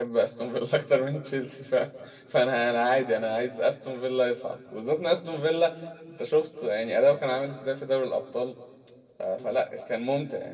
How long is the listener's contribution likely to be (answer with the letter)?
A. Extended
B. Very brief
B